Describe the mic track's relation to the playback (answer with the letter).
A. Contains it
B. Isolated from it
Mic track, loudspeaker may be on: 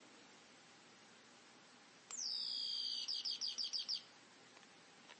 B